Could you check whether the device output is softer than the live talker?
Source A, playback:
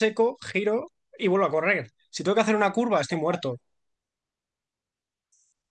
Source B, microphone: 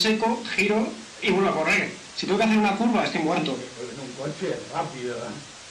No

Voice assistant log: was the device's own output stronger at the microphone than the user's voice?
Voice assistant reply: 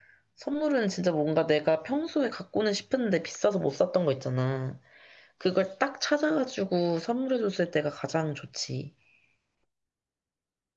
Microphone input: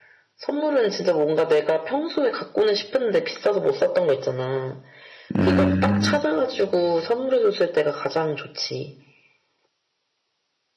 No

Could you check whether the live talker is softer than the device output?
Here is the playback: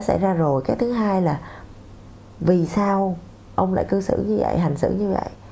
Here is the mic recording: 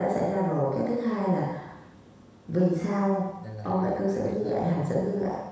Yes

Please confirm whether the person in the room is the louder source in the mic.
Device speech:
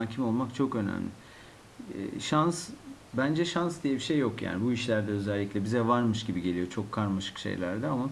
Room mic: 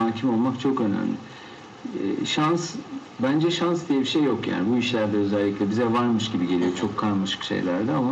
No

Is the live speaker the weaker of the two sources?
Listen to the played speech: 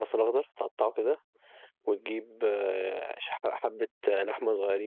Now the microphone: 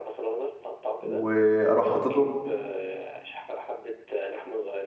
No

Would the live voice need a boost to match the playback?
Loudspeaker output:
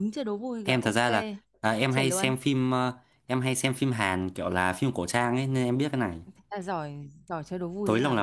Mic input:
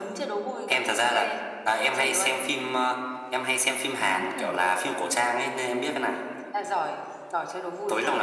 Yes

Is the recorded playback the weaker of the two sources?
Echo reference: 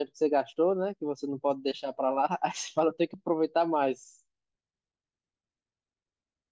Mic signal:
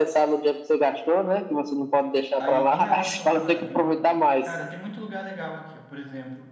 No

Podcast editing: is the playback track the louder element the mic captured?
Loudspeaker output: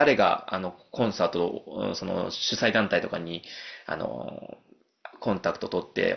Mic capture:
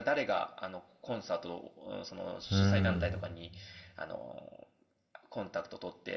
No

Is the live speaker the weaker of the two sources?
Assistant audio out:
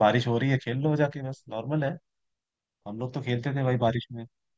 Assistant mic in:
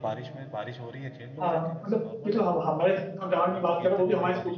No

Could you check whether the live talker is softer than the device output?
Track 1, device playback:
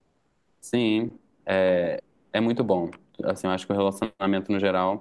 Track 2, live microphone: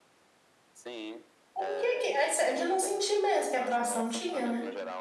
No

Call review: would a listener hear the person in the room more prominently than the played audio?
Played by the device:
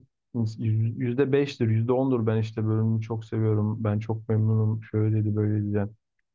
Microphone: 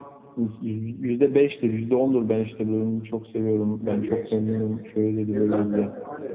No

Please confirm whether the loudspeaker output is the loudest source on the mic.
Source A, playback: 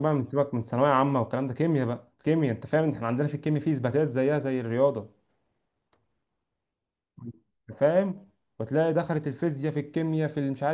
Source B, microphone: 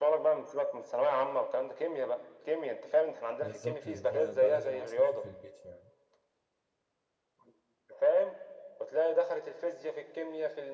Yes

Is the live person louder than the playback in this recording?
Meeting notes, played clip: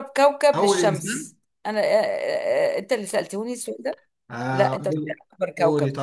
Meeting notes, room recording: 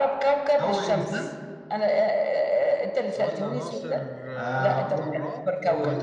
No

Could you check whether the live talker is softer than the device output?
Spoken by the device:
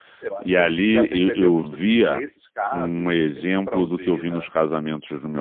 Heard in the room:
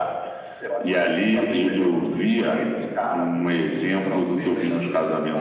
Yes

